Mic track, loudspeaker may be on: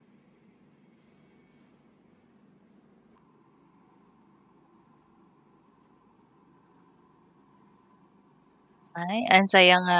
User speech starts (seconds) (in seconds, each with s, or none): 8.9 s